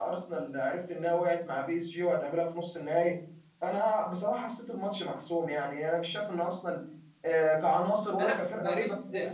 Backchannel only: No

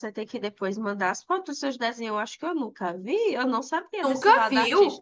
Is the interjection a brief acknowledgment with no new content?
Yes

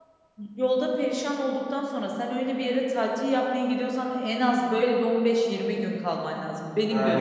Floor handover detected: Yes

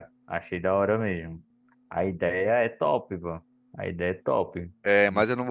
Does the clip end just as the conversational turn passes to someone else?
Yes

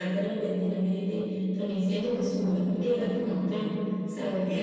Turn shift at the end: Yes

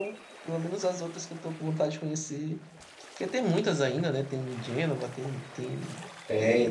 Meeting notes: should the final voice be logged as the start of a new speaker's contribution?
Yes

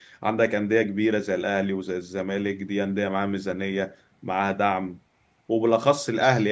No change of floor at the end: Yes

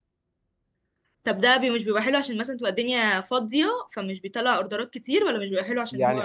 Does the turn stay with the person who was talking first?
No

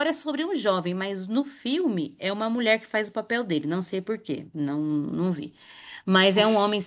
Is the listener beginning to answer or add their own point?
No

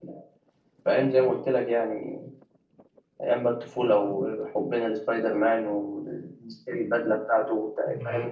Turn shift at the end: Yes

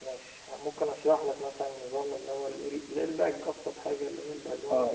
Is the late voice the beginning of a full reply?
Yes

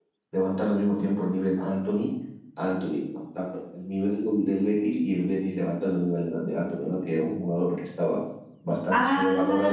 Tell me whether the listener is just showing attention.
Yes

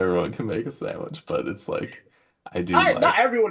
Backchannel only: No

